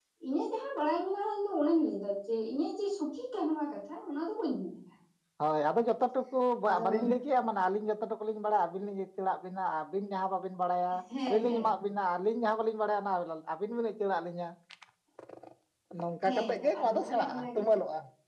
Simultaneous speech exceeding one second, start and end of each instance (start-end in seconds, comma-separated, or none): 16.2-17.6